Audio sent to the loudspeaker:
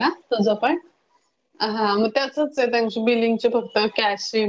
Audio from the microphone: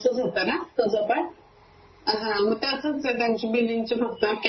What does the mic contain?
echo only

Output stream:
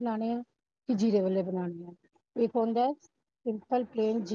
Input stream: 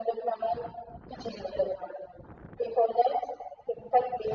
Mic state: echo only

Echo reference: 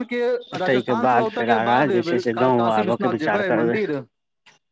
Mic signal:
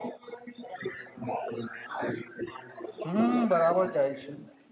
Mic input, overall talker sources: both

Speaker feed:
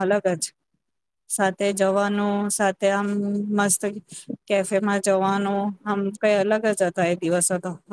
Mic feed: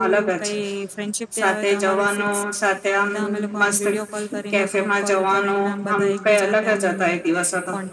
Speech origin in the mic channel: both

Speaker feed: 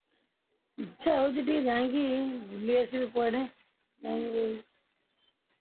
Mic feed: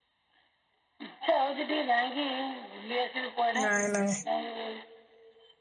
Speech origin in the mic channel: both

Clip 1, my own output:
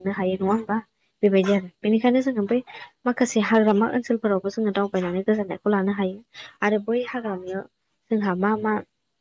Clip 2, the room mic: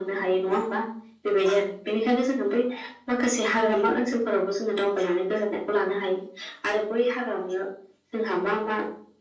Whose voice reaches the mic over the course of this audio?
echo only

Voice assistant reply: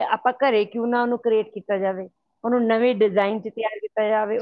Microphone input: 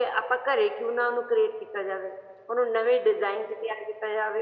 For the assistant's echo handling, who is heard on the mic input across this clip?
echo only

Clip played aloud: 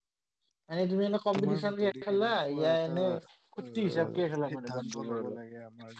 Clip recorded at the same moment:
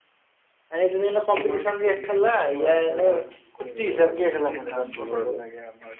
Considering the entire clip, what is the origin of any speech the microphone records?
echo only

